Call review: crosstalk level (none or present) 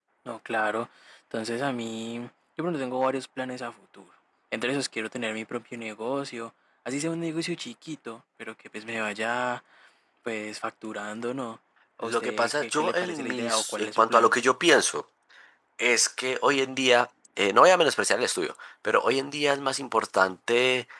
present